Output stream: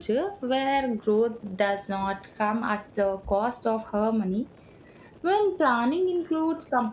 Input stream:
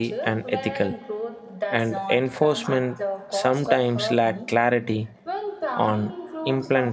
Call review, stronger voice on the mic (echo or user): user